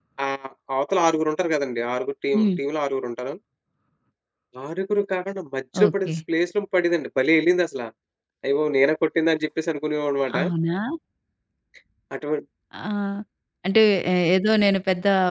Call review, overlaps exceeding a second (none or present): none